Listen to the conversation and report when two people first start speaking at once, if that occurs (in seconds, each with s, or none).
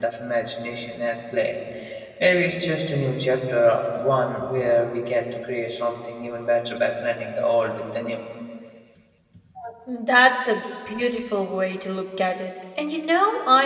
none